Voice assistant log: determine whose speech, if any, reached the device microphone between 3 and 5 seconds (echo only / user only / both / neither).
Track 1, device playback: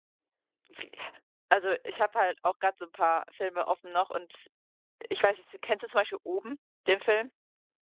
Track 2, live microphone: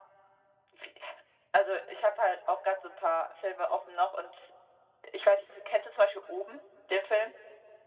echo only